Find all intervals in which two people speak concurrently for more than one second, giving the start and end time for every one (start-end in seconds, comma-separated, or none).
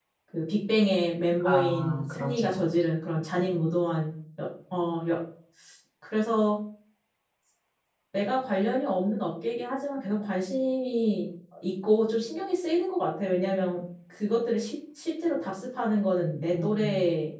1.4-2.7